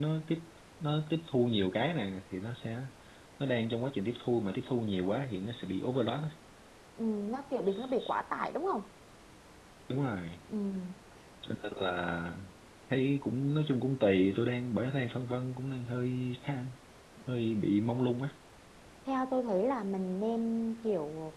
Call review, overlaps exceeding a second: none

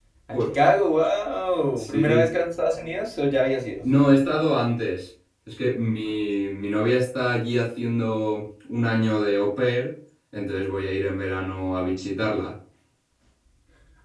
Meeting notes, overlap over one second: none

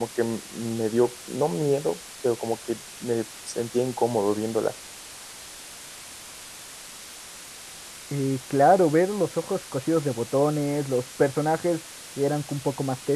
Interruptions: none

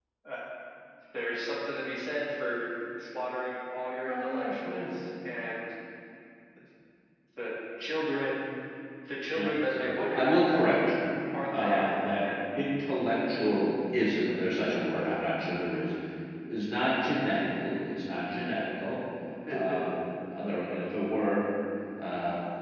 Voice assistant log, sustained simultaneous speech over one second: present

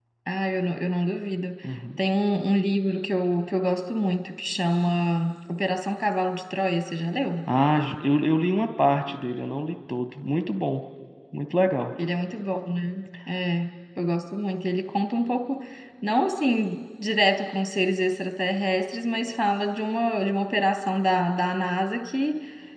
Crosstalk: none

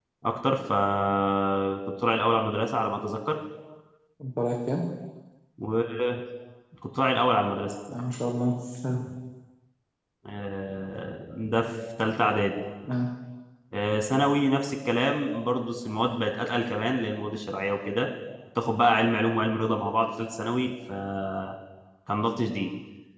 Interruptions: none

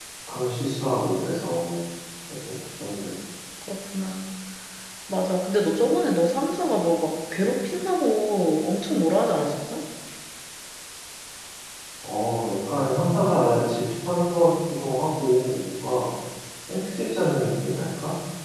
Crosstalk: none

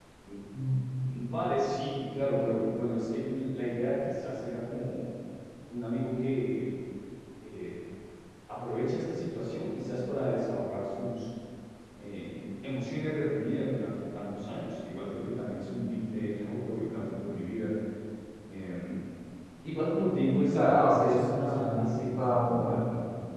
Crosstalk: present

